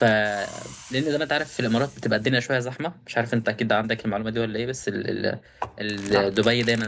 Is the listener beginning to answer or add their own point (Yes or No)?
No